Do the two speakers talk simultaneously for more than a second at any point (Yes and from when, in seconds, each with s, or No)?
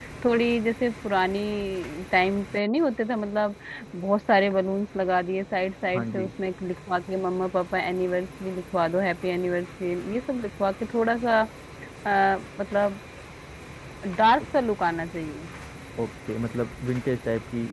No